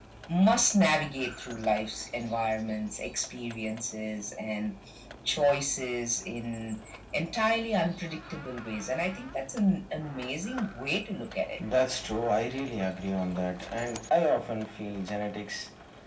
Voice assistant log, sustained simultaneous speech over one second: none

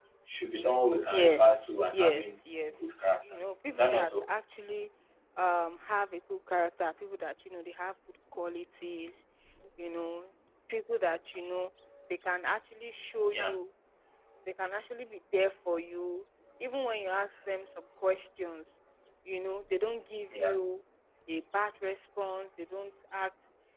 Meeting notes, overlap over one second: present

